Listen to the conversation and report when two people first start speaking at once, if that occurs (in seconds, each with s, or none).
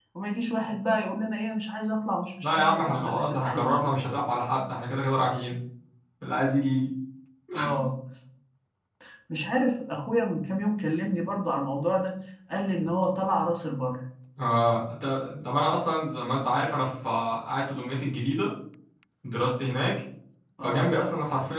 2.4 s